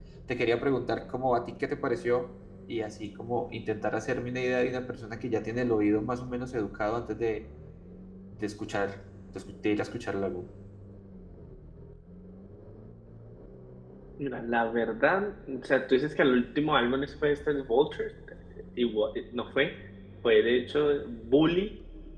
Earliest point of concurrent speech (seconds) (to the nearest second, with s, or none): none